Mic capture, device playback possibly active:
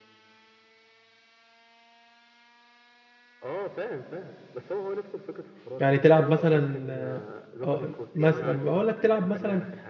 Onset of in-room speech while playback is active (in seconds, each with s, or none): 5.8 s